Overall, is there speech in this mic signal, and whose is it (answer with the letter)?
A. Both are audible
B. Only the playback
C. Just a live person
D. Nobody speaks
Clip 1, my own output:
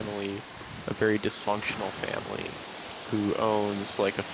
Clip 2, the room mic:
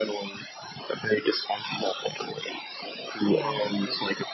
A